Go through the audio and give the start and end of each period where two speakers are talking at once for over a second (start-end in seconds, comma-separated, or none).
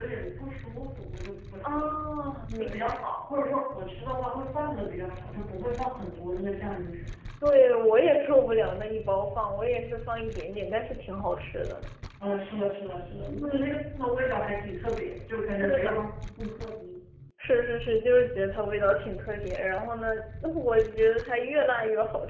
none